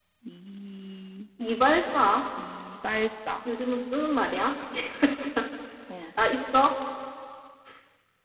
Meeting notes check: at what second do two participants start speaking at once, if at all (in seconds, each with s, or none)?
none